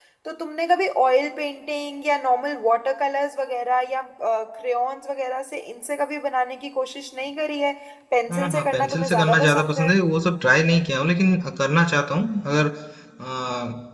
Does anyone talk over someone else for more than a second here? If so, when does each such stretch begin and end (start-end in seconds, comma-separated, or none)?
8.3-9.9